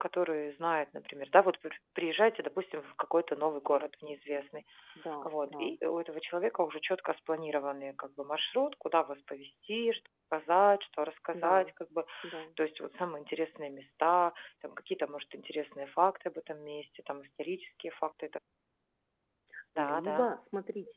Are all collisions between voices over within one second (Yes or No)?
Yes